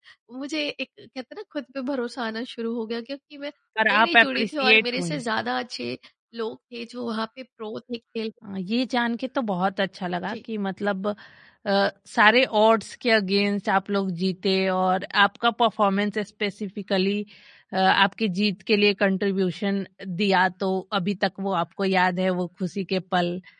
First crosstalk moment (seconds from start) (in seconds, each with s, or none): 3.9 s